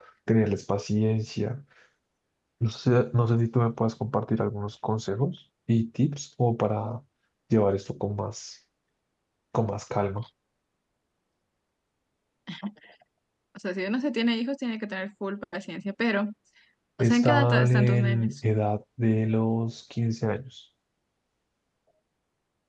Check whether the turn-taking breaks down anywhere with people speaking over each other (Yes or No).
Yes